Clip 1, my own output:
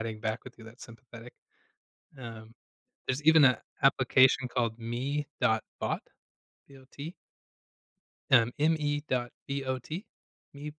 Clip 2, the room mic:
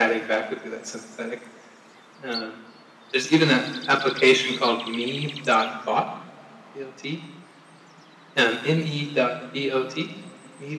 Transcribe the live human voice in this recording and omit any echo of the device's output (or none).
none